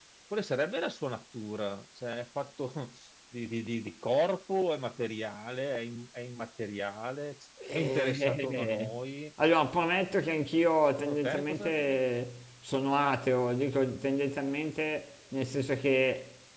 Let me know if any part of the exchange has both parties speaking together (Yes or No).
Yes